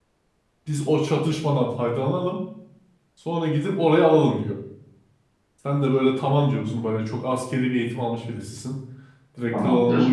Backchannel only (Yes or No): Yes